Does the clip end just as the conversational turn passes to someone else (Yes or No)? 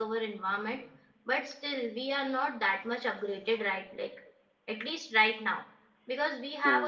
No